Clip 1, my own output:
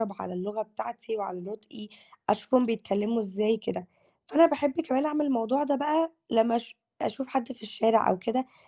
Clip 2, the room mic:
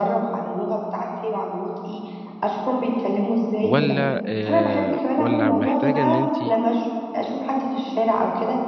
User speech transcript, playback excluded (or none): والّا آآ والّا محتاجة إن أنتِ